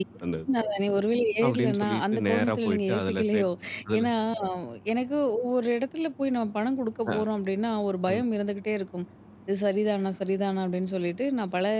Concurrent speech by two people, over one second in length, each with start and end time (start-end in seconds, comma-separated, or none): 1.4-3.5